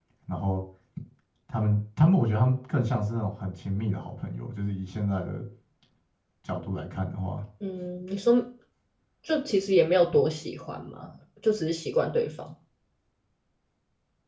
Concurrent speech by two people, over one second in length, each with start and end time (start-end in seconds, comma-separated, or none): none